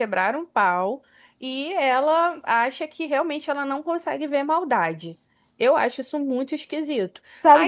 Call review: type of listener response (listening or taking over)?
taking over